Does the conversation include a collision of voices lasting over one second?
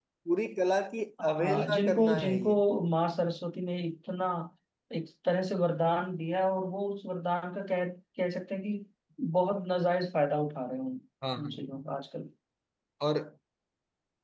Yes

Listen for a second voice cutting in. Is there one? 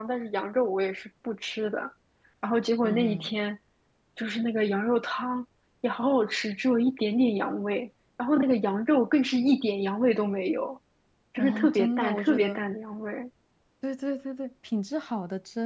Yes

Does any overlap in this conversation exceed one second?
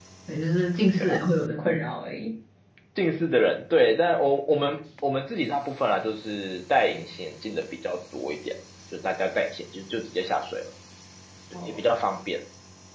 No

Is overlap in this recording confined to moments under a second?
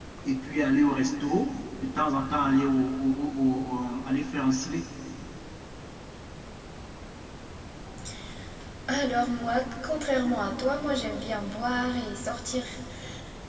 Yes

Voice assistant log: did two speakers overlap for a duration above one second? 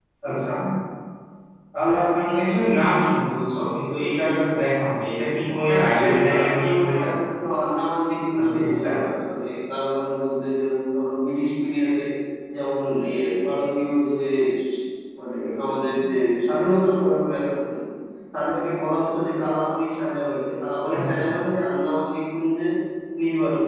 Yes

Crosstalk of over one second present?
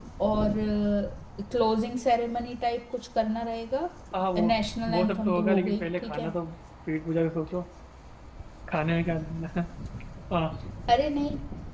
Yes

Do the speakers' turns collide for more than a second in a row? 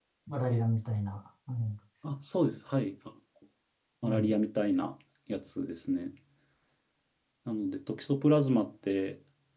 No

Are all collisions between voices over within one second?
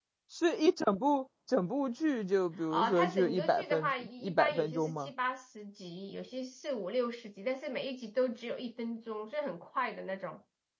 No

